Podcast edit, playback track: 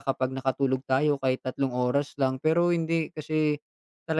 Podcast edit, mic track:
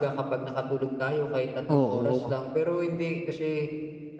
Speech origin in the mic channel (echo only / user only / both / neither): both